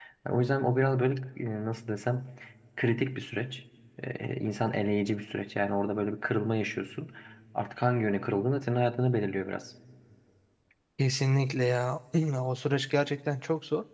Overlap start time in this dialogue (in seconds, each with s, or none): none